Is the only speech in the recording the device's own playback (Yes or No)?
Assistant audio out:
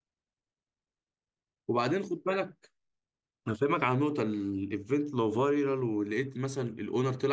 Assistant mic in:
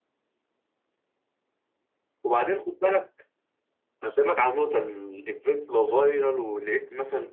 Yes